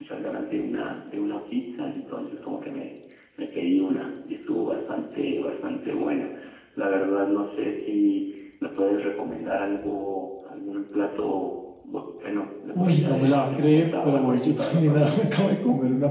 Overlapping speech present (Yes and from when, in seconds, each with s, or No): Yes, from 12.7 s